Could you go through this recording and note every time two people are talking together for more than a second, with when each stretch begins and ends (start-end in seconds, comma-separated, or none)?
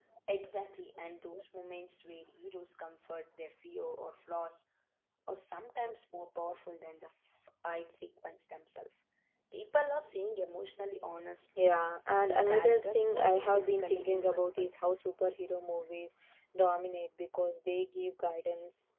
12.3-14.7